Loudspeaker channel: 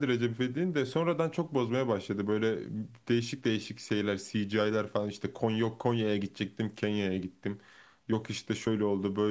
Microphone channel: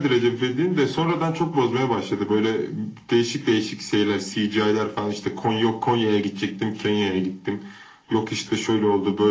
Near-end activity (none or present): none